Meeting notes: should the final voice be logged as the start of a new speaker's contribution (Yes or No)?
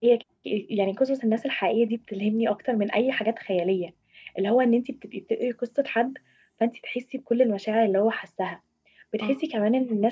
No